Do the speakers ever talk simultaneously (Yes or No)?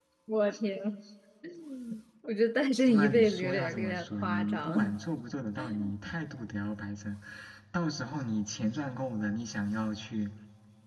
Yes